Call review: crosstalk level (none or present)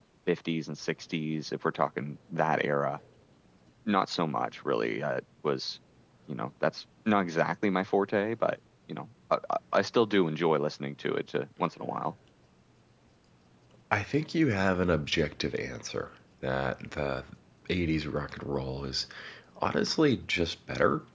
none